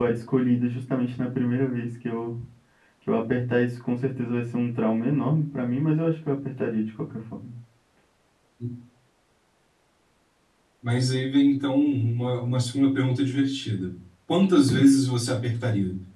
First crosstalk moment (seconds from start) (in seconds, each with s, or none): none